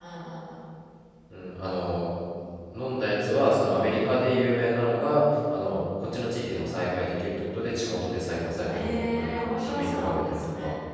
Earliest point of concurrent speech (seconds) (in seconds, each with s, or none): 8.7 s